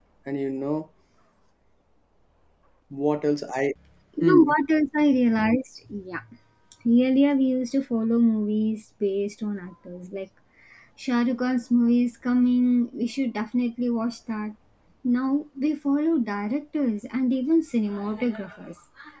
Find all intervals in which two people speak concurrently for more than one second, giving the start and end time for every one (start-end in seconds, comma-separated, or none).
none